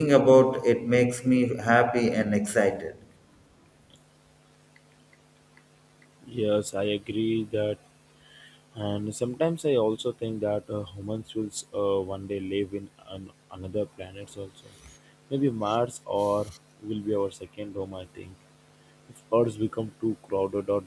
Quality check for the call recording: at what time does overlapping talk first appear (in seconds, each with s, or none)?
none